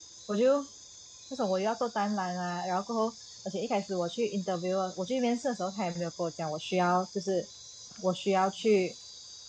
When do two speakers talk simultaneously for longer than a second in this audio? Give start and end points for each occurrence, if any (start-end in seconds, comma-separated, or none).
none